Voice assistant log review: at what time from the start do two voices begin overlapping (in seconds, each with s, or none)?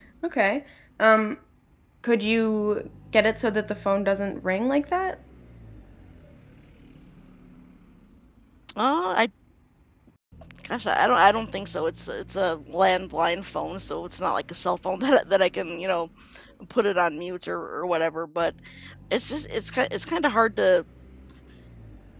none